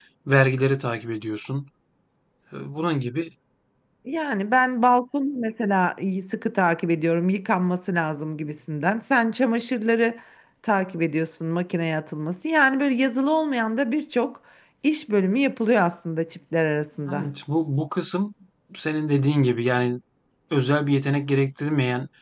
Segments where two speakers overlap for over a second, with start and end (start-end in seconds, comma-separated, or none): none